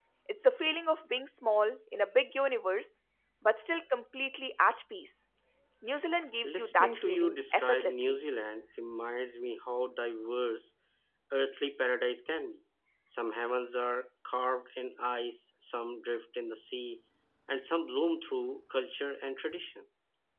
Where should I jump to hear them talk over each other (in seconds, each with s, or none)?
6.4 s